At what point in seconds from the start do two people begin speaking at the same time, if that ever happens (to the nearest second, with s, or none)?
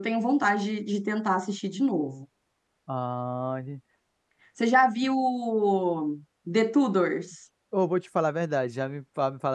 none